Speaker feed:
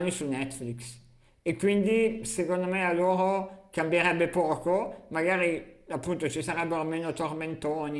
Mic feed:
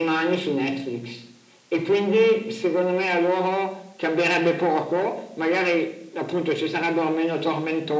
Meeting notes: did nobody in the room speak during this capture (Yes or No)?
Yes